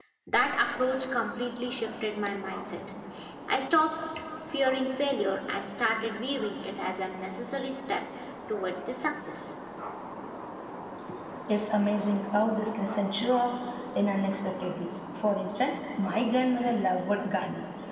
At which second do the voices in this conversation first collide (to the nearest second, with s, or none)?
none